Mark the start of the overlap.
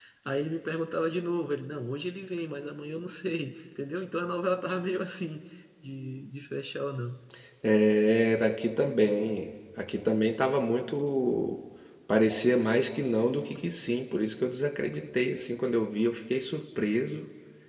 none

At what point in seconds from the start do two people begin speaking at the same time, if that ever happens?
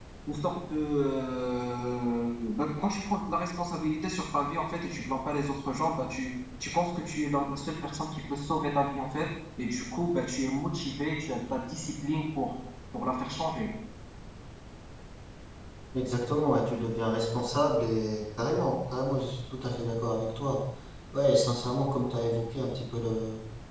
none

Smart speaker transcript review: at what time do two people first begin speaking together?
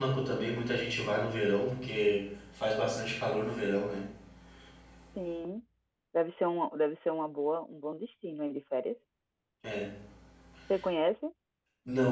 none

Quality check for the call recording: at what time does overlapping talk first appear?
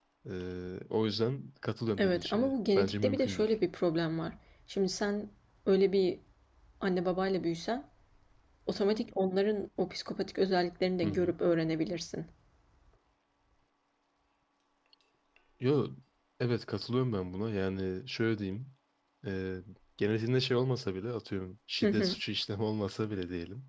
2.0 s

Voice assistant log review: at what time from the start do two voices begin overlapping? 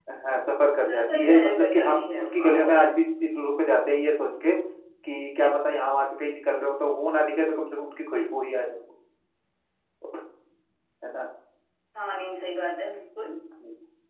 0.9 s

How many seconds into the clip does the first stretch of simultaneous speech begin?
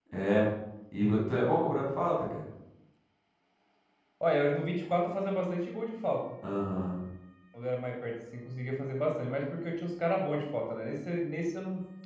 none

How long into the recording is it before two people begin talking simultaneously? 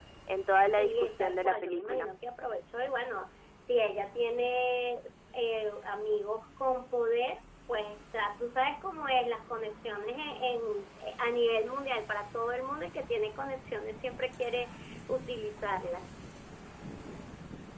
0.8 s

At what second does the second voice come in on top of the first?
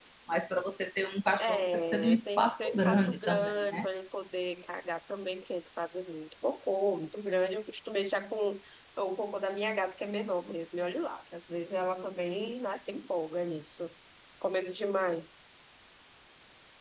1.4 s

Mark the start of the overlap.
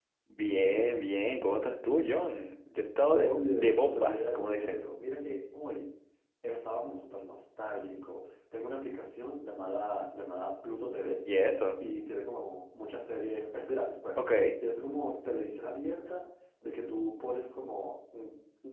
3.2 s

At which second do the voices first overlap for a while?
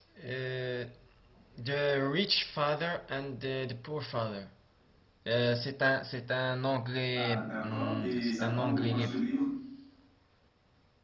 7.1 s

